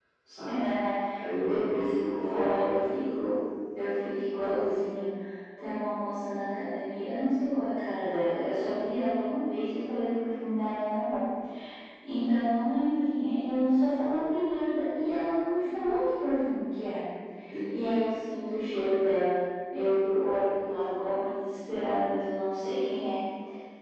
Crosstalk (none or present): present